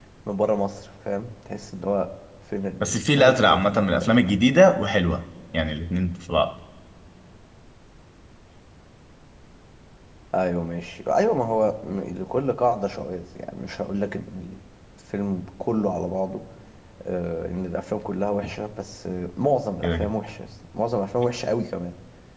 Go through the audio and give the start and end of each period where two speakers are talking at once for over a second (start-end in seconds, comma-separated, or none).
2.8-4.4